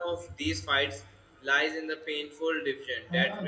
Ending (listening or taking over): listening